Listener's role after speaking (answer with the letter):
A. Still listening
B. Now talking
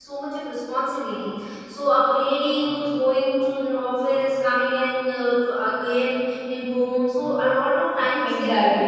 B